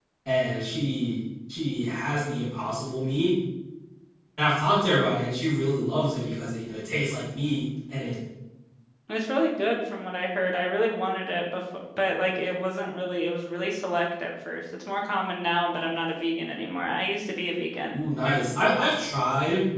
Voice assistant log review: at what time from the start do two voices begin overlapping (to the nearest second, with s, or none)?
none